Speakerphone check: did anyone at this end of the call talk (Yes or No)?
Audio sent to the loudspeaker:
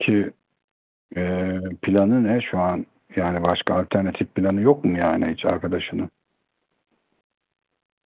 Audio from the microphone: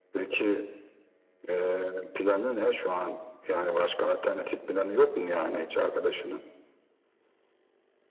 No